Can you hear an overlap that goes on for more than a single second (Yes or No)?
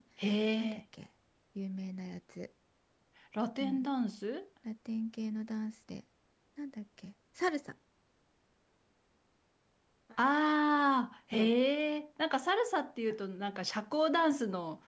No